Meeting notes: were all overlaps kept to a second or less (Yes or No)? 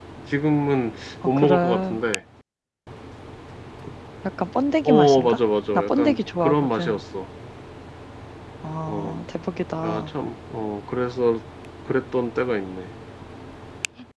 No